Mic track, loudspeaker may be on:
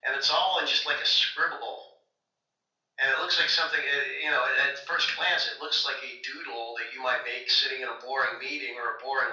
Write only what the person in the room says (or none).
none